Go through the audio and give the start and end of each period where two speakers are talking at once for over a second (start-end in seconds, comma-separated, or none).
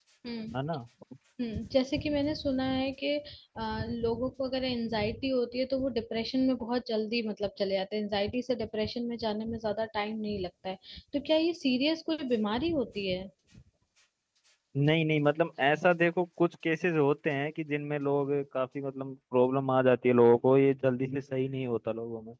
none